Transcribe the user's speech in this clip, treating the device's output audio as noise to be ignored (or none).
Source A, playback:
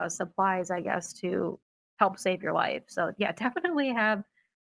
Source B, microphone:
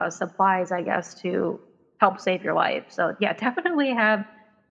none